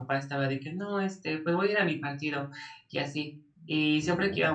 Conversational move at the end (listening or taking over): listening